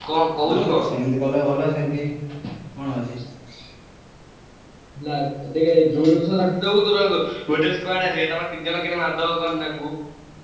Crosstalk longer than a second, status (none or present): none